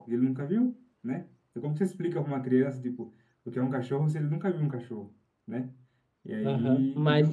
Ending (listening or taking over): taking over